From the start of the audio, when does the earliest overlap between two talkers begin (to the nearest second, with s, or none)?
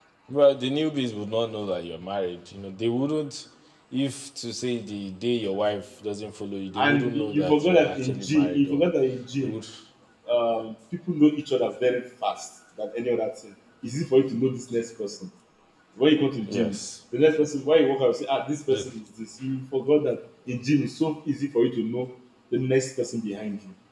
7 s